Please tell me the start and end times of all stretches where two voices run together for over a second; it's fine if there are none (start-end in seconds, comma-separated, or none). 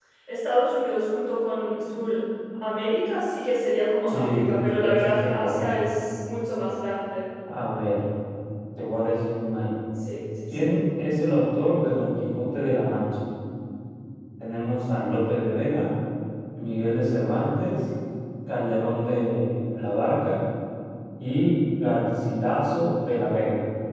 4.1-5.7